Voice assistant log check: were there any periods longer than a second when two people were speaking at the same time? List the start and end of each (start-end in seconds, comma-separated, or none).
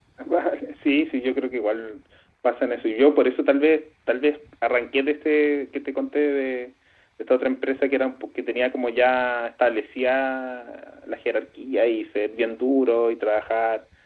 none